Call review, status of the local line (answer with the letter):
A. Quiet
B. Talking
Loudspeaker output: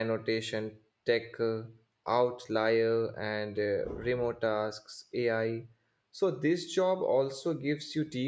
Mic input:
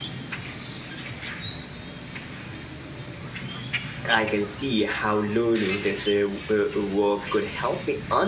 B